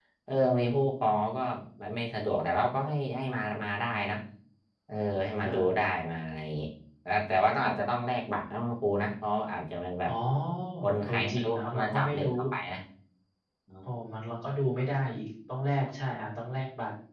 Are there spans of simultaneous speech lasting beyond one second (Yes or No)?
Yes